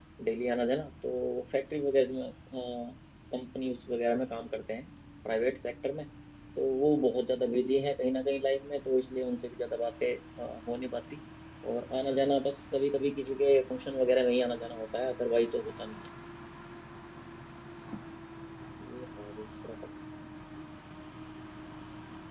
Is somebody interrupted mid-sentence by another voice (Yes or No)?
No